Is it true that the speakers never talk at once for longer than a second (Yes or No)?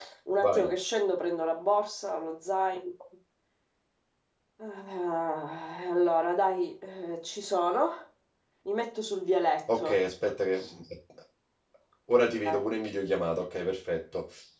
Yes